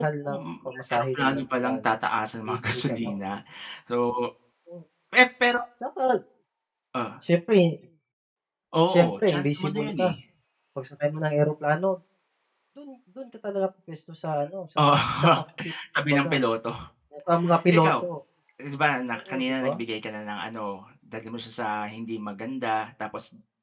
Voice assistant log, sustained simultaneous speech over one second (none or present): present